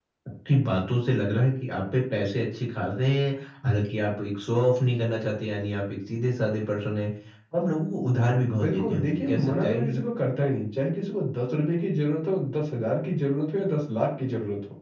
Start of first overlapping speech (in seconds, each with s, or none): 8.6 s